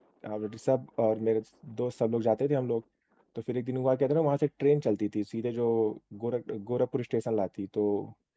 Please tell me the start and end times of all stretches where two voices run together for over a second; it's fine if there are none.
none

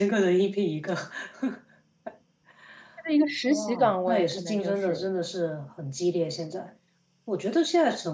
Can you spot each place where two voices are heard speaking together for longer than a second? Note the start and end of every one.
3.5-5.0

